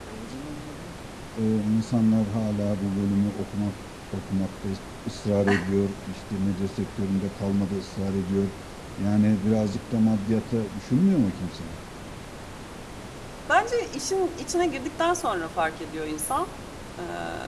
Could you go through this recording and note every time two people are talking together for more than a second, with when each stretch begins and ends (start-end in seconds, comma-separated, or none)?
none